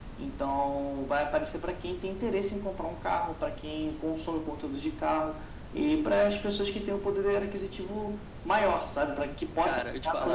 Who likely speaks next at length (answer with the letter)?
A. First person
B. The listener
B